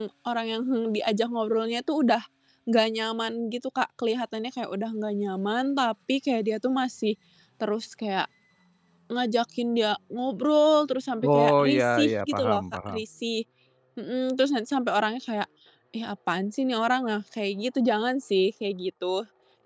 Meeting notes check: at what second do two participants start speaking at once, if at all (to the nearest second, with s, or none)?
11 s